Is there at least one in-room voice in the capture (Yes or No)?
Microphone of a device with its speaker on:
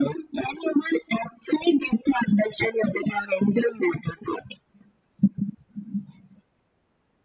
No